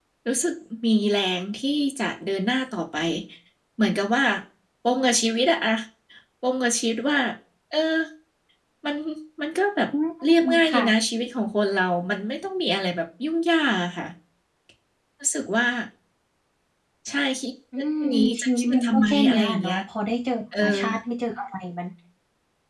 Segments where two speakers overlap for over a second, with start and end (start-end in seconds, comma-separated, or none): 18.0-19.8